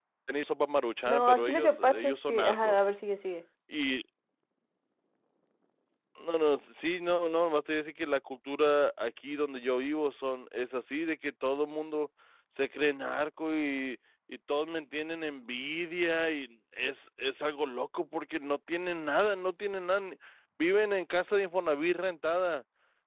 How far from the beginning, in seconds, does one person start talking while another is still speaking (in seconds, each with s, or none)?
1.1 s